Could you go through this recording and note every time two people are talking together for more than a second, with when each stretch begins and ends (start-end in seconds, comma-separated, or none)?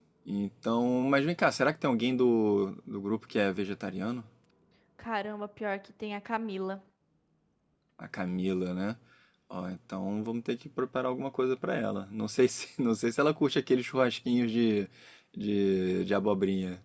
none